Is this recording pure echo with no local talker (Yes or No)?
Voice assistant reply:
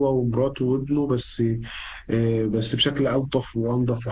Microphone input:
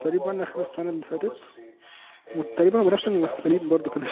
No